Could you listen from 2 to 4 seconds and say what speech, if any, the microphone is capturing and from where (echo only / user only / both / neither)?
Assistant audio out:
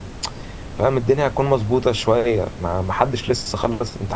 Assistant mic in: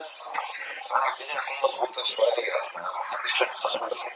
echo only